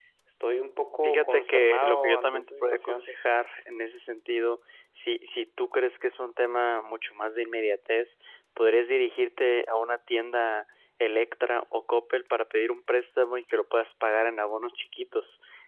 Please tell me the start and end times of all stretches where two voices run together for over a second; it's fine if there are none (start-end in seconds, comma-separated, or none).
1.0-3.1